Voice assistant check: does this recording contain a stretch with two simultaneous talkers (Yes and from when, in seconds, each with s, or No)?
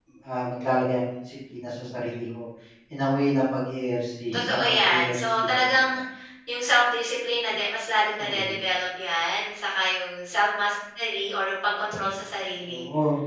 Yes, from 4.3 s